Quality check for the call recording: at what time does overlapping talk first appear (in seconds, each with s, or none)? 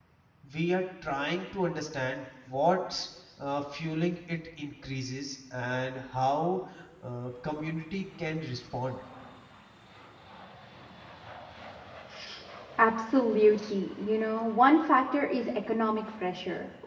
none